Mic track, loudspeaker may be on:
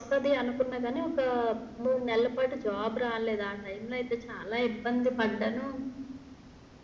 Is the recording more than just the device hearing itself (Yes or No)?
No